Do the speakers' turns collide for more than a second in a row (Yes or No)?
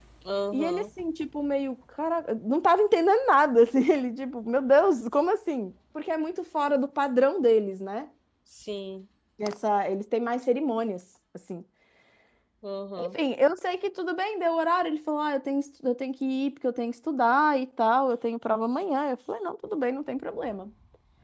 No